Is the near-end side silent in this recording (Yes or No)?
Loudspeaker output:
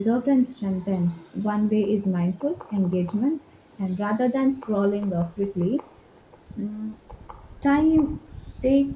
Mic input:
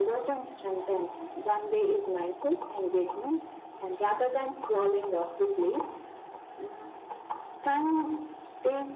Yes